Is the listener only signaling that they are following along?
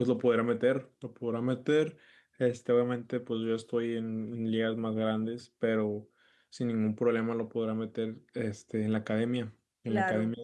No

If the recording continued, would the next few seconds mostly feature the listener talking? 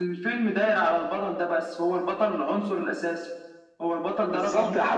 Yes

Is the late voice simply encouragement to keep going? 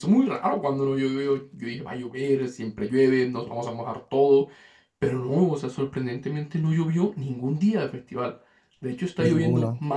Yes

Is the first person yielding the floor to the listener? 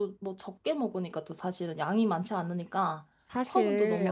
Yes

